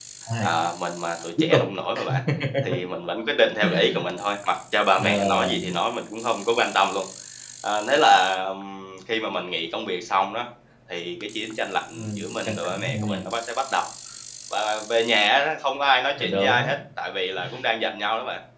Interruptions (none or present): present